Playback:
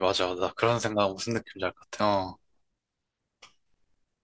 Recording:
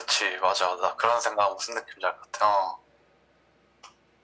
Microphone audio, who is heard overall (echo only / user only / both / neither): echo only